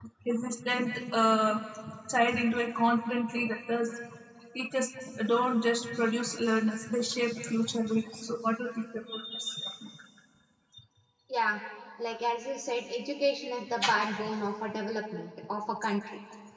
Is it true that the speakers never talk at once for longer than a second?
Yes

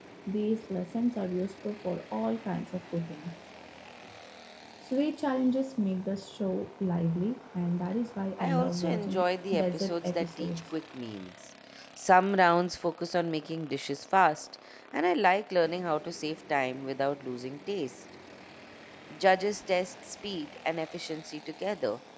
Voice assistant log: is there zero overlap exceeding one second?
No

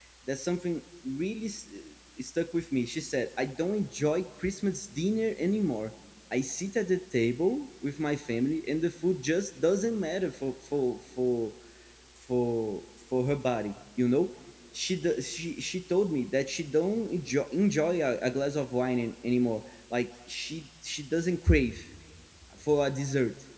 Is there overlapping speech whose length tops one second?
No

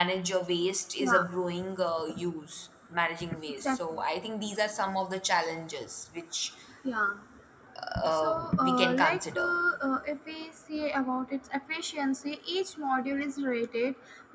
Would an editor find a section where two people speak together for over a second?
Yes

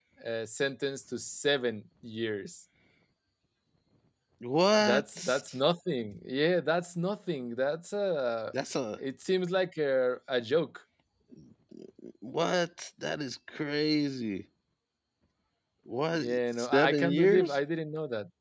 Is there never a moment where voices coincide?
No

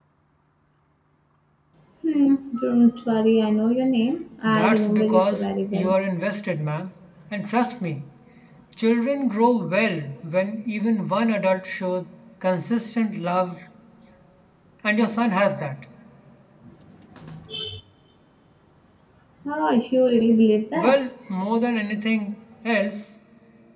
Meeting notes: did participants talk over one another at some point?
Yes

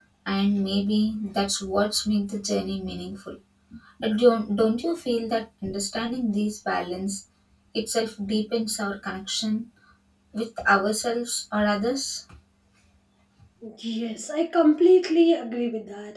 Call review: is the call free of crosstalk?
Yes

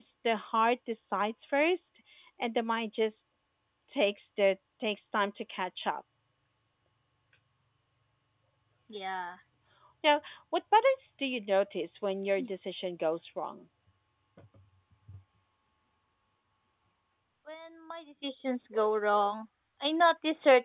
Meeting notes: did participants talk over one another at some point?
No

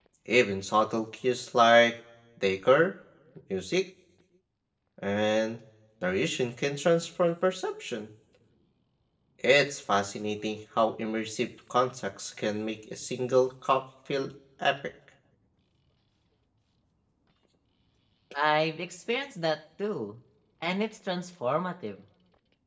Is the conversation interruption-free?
Yes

